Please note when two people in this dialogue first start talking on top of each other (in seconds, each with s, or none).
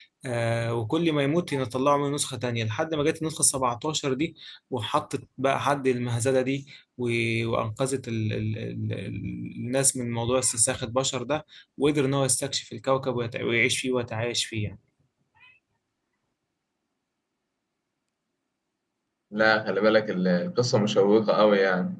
none